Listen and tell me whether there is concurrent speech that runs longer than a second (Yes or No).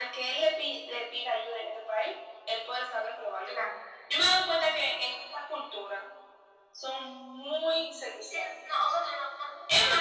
No